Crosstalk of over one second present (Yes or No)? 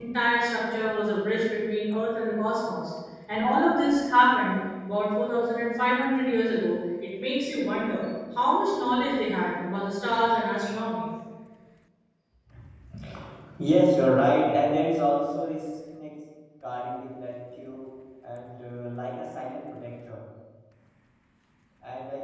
No